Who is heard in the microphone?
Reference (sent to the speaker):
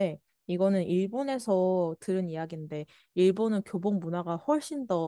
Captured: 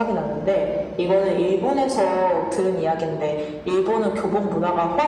echo only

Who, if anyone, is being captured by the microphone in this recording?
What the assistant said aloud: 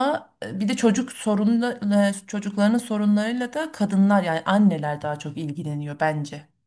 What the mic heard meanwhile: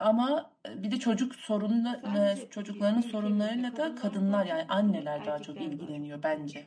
both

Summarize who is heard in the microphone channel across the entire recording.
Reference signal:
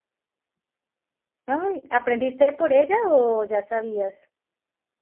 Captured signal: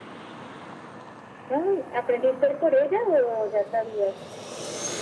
echo only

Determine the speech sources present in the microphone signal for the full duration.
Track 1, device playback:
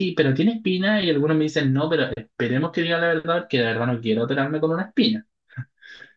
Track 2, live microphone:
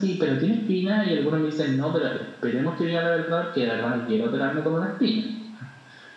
echo only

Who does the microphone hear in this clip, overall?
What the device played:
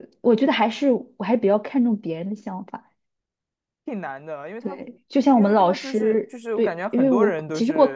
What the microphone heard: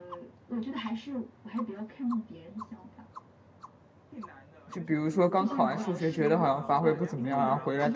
both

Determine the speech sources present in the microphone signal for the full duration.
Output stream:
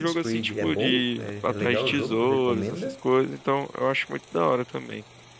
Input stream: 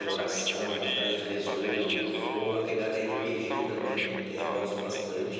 both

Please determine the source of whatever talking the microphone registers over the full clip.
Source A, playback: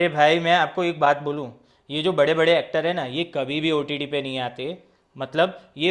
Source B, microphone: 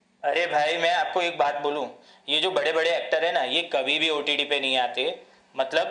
echo only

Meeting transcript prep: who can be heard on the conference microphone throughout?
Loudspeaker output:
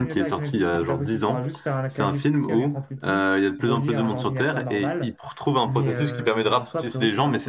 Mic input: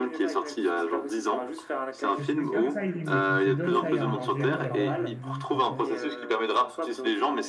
both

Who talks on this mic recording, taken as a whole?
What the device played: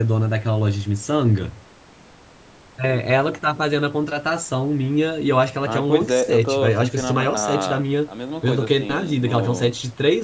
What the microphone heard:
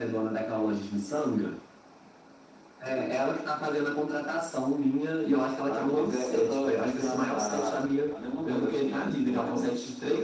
echo only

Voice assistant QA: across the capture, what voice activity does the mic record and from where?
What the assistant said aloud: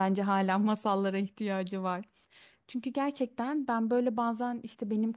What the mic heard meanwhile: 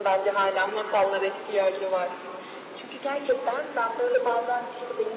echo only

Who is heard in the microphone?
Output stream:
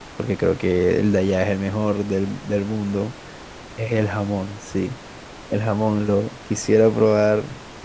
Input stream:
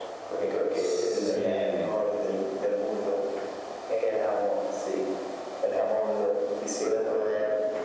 both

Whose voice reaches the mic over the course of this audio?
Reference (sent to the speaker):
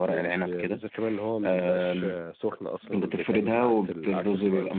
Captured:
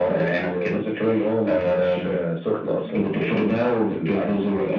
echo only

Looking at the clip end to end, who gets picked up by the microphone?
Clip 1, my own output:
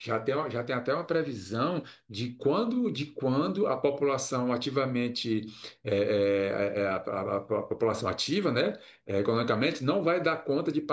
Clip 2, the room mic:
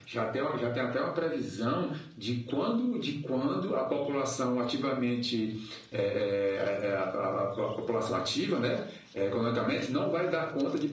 echo only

